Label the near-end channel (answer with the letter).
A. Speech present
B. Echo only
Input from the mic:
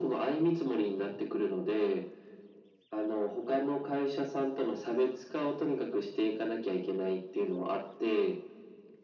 B